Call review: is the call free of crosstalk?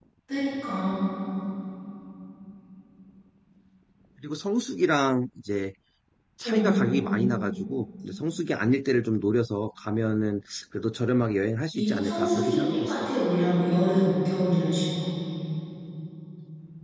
No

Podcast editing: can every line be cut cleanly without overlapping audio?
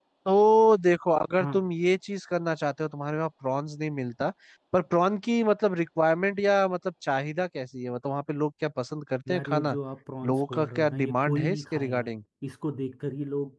No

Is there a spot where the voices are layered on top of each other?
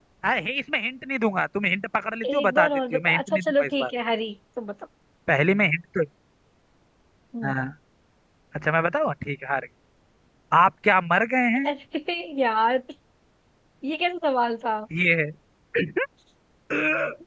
Yes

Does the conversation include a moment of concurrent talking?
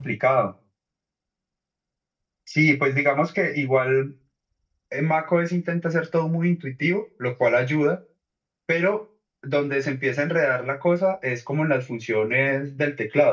No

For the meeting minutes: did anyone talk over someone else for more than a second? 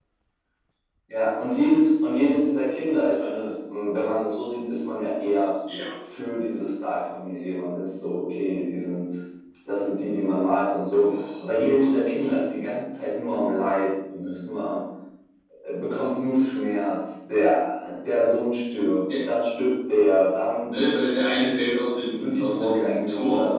Yes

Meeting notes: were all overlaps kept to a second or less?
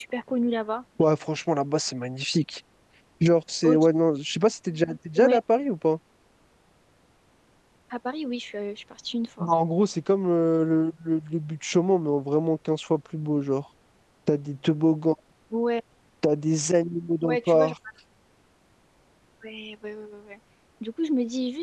Yes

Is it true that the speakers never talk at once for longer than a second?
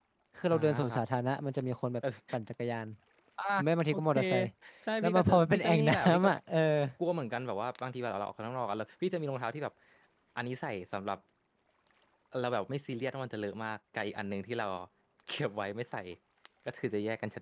No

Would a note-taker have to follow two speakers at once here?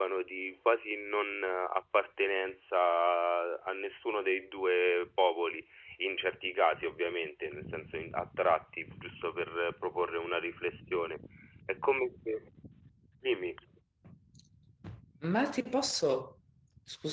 No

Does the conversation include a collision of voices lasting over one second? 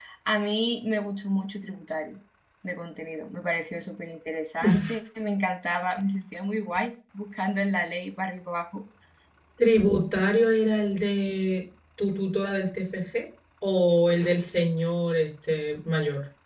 No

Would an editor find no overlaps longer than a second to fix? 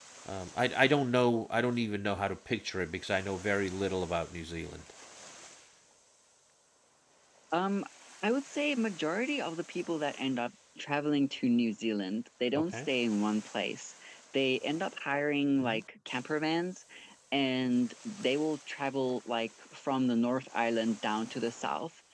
Yes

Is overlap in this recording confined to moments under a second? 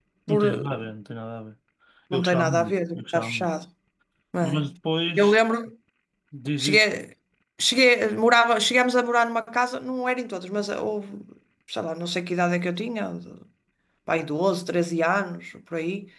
No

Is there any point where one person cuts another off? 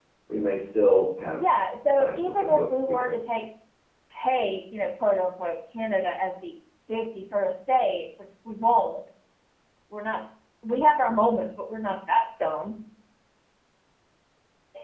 Yes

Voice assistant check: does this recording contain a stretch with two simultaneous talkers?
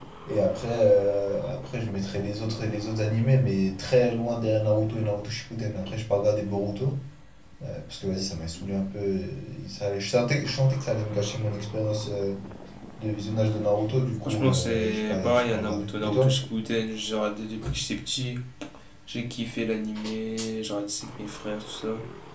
Yes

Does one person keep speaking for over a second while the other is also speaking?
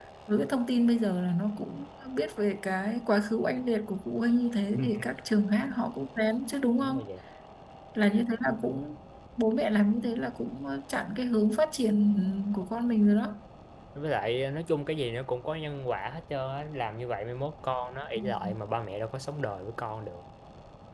No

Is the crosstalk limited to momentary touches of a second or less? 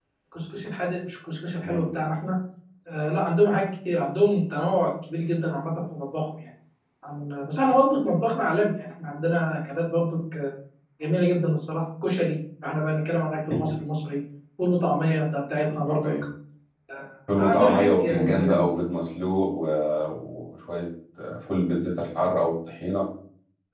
No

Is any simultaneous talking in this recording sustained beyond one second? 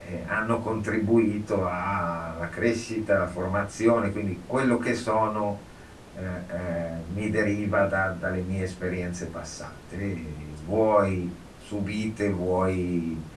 No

